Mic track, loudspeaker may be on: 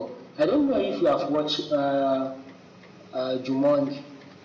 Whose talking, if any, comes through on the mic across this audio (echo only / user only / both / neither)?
echo only